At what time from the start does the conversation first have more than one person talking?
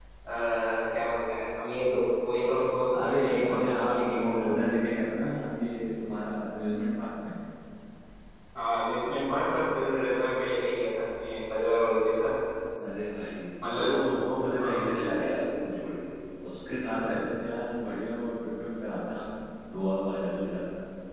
3.0 s

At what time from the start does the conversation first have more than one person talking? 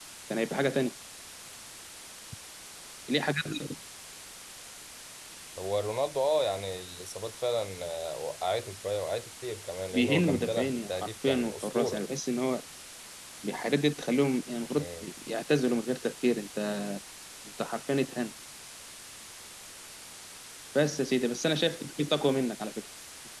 9.9 s

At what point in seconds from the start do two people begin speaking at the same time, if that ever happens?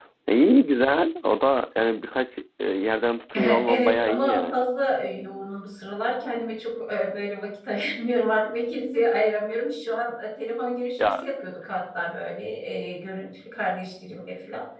3.4 s

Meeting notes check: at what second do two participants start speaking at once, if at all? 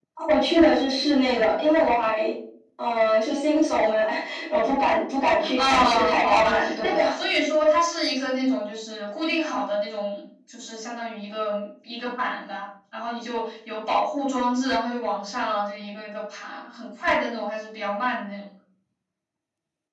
5.4 s

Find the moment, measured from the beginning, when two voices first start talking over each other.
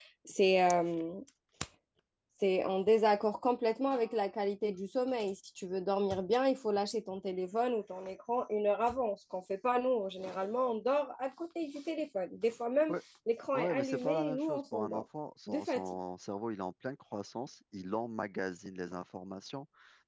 13.5 s

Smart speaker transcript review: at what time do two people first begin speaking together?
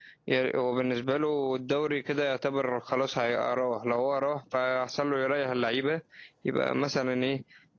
none

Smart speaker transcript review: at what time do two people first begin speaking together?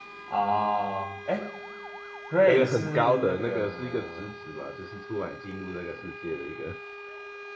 2.5 s

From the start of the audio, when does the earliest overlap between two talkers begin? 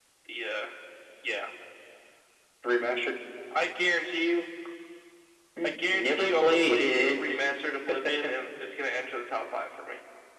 5.6 s

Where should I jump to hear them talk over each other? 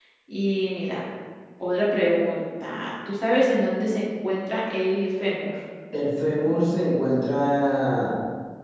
none

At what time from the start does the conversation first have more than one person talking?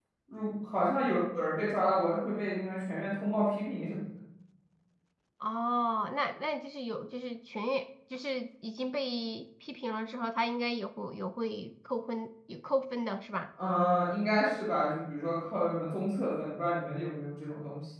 none

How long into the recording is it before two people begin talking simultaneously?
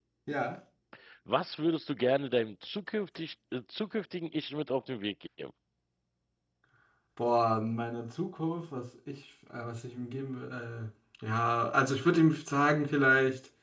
none

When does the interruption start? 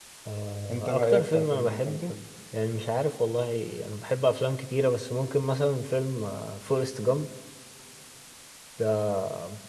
0.7 s

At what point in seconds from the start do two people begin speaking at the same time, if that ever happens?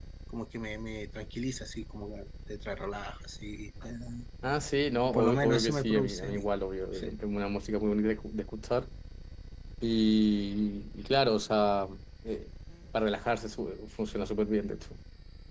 5.1 s

